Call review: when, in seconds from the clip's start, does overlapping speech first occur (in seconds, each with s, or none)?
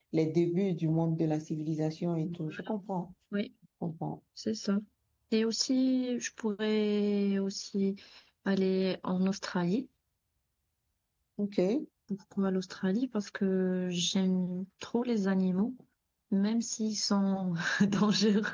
none